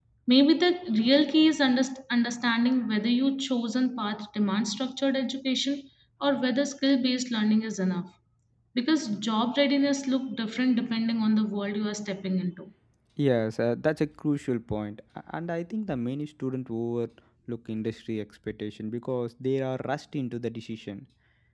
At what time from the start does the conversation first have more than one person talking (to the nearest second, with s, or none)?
none